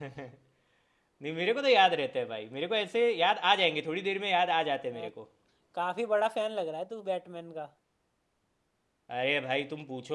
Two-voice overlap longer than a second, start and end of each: none

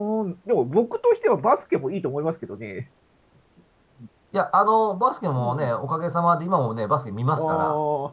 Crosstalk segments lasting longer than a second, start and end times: none

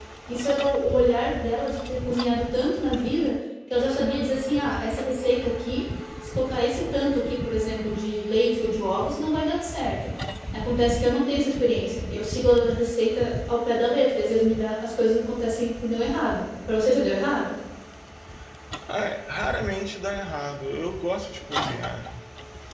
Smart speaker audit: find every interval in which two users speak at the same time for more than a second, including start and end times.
none

